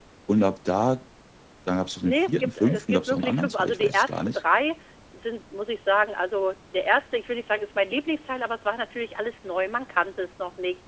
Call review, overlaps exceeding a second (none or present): present